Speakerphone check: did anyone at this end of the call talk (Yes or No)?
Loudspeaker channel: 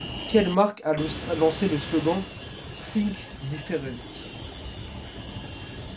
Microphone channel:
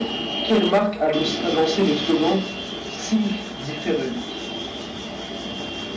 No